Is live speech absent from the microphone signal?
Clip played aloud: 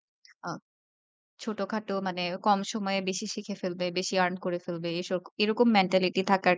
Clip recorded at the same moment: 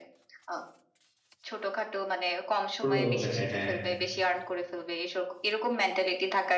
No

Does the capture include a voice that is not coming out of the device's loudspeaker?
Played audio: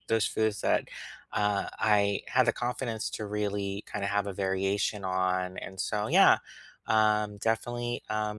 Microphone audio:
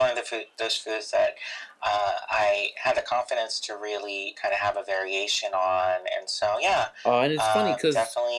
Yes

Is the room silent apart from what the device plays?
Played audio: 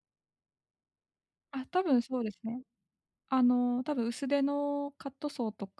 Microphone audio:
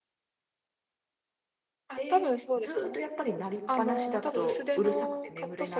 No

